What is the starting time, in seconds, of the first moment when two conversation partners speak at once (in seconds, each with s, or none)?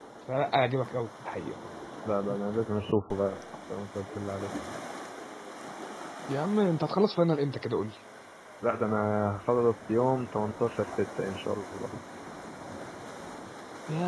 none